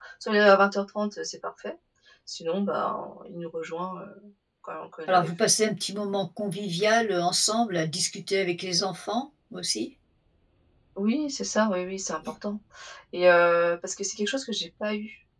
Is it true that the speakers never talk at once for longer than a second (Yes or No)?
Yes